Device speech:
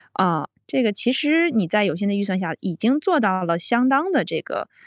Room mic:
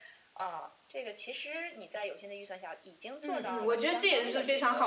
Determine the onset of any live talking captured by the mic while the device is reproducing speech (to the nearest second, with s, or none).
3 s